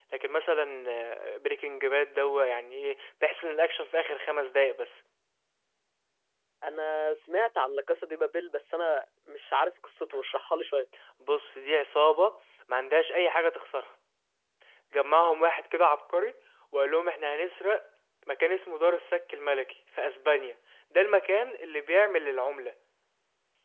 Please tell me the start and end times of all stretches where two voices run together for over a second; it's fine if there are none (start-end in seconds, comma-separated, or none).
none